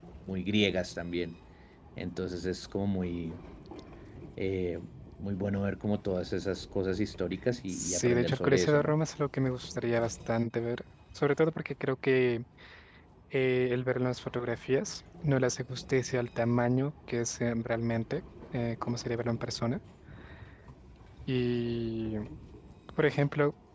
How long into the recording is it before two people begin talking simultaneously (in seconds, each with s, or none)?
7.7 s